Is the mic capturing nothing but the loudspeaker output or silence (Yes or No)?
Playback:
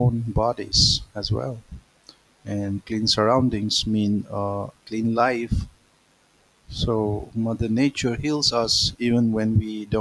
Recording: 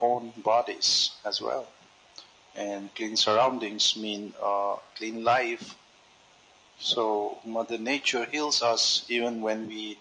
Yes